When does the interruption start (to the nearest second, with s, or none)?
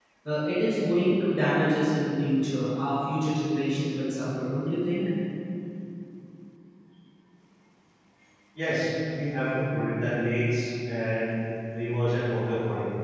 none